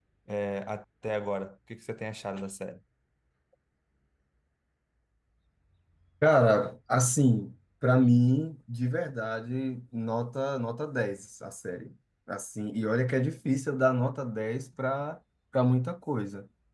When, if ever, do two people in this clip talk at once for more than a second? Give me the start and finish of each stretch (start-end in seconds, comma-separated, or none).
none